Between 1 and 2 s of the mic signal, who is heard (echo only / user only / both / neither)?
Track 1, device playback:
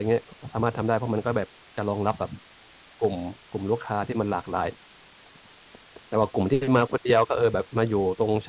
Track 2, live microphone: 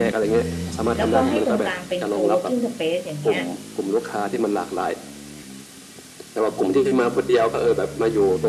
both